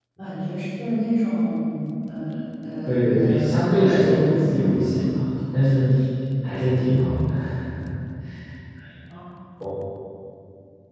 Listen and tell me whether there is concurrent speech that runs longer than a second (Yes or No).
Yes